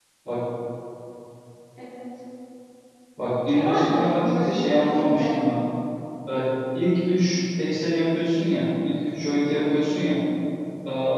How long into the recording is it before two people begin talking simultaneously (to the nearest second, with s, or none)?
4 s